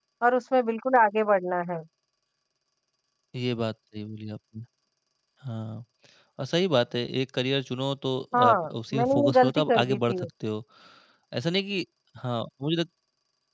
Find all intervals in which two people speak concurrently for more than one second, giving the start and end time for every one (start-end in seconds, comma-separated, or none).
8.3-10.2